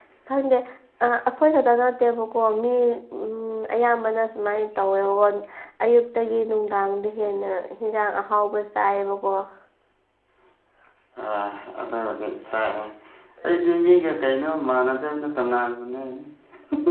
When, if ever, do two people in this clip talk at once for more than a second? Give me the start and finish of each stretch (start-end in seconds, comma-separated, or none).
none